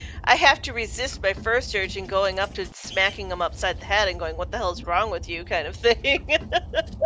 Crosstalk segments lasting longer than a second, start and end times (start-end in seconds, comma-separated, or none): none